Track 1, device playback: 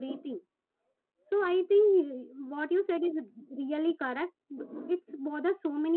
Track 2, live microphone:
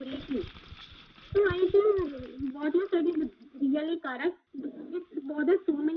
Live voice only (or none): none